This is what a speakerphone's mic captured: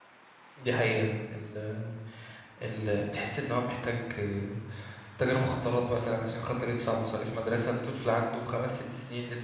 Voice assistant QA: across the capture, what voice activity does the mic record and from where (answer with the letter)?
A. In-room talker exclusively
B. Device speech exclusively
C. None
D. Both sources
A